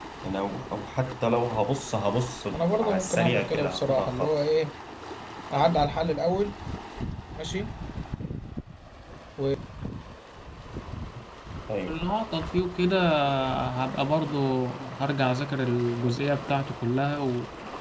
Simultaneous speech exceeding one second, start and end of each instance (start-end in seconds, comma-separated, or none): 2.5-4.4